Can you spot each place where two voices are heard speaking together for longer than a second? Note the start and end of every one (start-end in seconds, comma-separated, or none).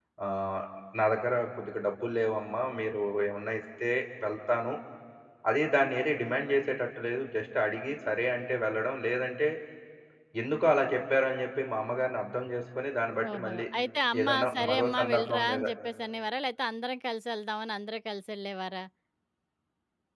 14.2-15.6